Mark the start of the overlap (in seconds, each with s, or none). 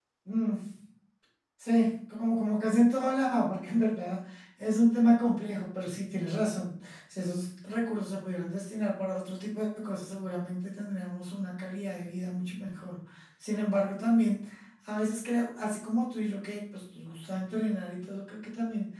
none